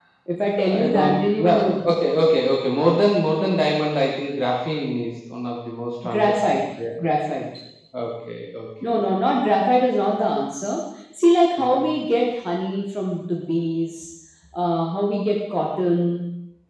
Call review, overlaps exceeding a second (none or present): present